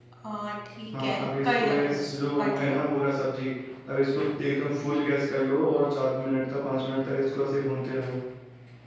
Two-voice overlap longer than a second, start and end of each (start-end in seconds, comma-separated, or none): 1.0-2.8